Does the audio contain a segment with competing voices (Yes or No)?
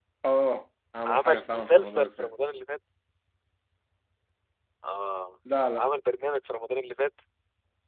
Yes